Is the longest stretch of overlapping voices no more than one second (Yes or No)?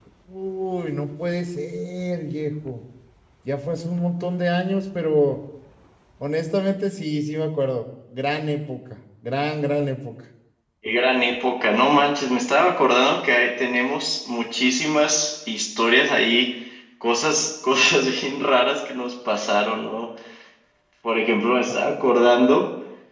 Yes